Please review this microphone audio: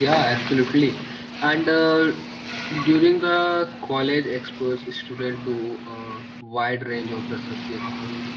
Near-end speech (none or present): present